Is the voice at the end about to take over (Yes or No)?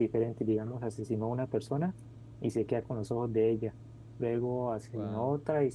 No